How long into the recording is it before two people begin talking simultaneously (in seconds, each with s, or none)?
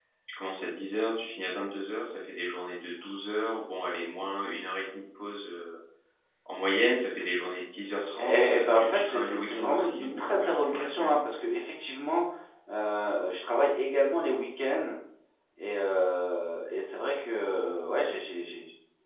8.2 s